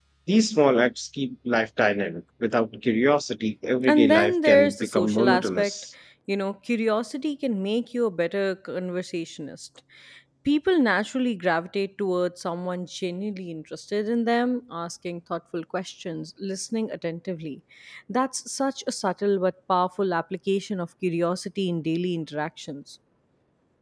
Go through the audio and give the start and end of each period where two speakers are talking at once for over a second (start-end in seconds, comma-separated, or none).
3.9-5.7